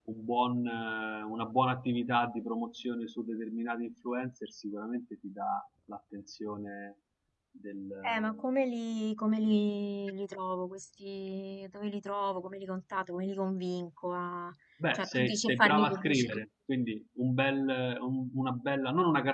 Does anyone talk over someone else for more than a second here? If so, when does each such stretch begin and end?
14.9-16.3

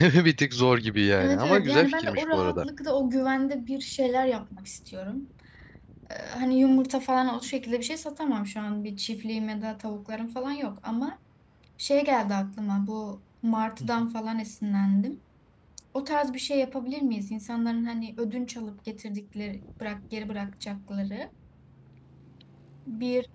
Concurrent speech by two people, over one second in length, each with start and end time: 1.2-2.7

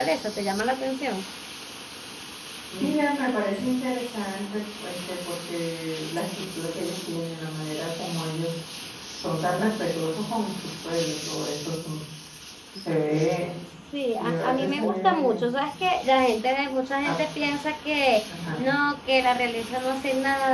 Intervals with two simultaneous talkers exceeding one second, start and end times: 14.2-15.4

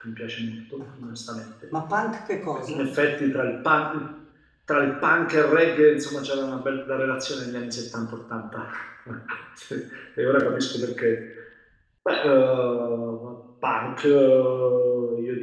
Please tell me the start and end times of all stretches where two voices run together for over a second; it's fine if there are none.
none

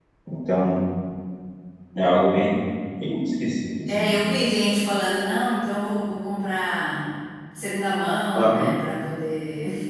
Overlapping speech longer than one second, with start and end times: none

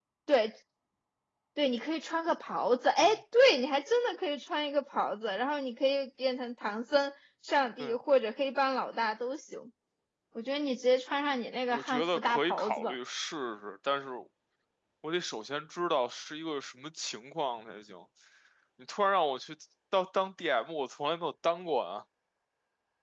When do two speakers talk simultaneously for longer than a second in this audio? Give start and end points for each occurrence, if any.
11.7-12.9

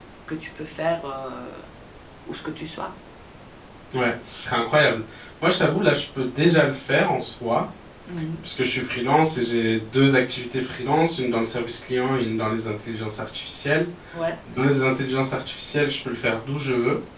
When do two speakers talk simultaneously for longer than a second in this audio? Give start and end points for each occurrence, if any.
none

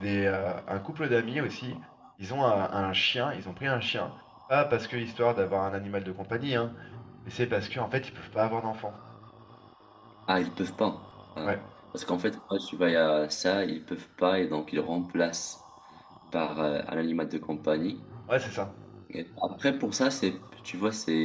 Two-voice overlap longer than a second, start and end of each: none

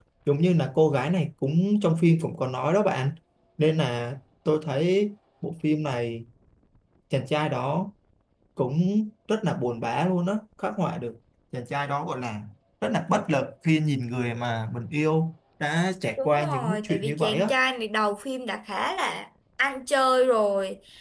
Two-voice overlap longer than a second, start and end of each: 16.2-17.5

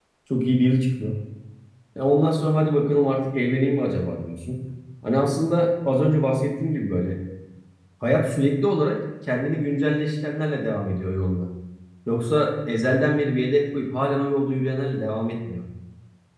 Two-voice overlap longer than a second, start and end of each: none

